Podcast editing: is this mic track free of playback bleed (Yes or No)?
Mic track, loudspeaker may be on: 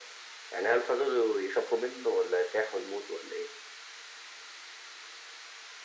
No